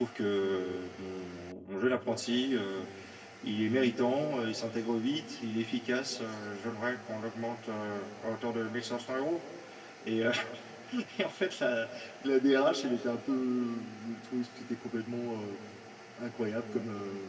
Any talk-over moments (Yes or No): No